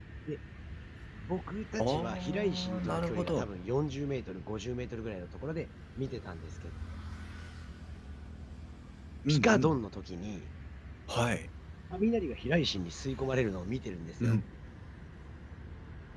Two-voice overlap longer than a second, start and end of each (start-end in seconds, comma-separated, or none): 1.8-3.5